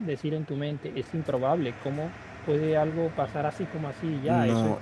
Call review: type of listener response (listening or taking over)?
taking over